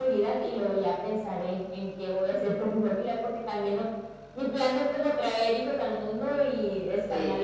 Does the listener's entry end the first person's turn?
Yes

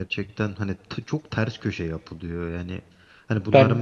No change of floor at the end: Yes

